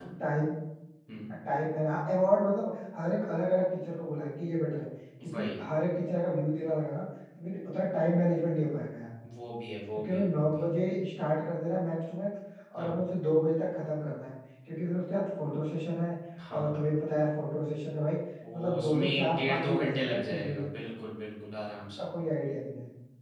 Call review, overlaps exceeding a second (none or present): present